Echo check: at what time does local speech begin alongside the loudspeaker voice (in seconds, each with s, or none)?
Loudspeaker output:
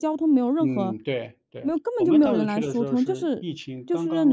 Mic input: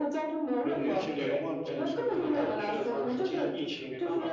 0.6 s